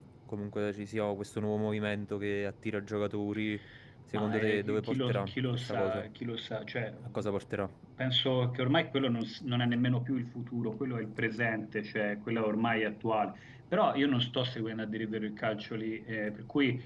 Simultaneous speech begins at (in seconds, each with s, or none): 4.1 s